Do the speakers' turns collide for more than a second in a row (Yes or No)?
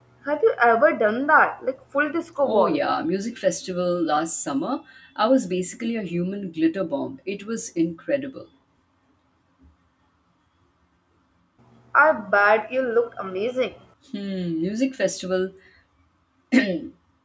No